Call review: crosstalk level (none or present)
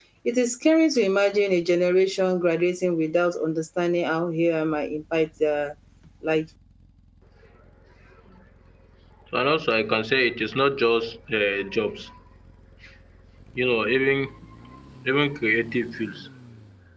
none